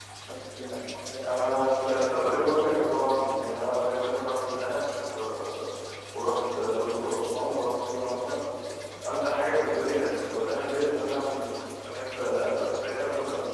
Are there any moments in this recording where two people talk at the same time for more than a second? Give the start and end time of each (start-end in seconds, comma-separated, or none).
1.2-2.8